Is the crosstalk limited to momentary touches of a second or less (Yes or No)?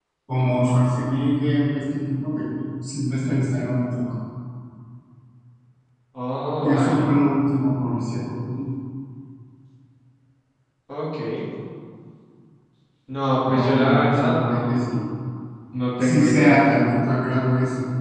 No